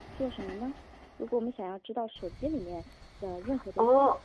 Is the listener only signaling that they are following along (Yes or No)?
No